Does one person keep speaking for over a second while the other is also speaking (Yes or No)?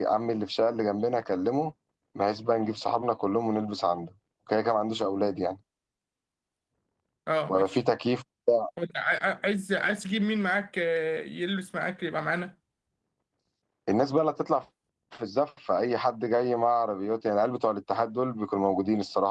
No